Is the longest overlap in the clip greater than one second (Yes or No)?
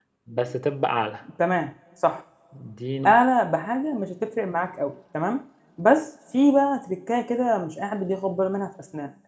No